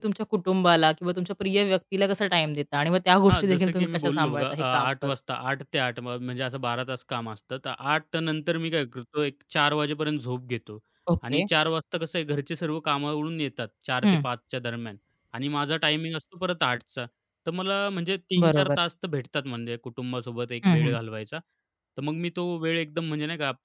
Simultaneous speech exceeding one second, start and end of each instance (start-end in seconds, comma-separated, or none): 3.3-5.1